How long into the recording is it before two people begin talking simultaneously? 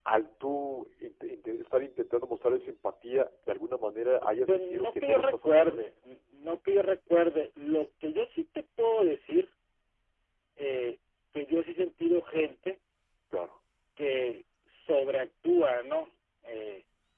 4.0 s

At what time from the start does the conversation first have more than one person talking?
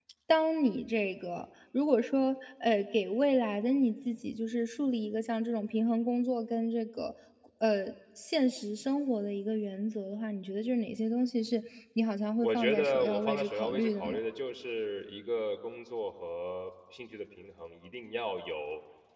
12.4 s

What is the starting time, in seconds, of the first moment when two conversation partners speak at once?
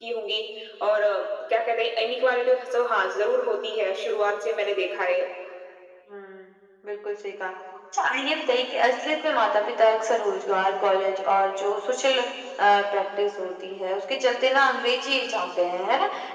none

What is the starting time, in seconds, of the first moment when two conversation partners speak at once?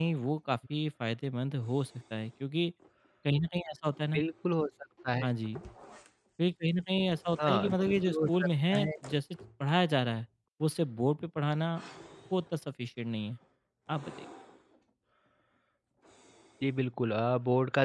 7.4 s

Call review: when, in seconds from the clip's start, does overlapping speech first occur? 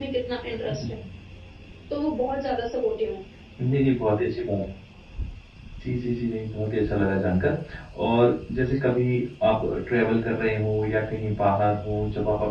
none

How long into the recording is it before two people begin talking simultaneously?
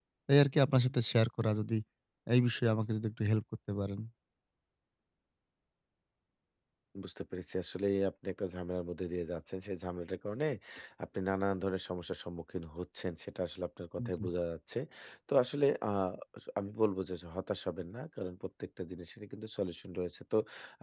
none

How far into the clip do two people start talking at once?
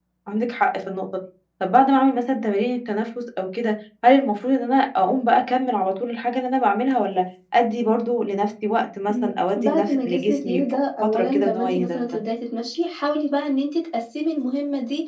9.1 s

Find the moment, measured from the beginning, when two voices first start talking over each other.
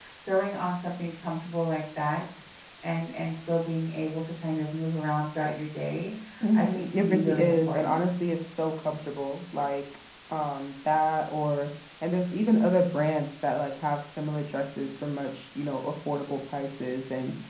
6.6 s

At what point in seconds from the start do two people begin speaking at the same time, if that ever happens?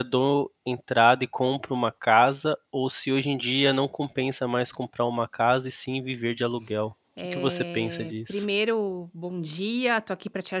7.2 s

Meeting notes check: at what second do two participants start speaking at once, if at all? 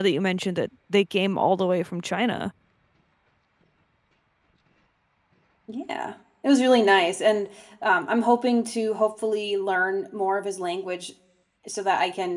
none

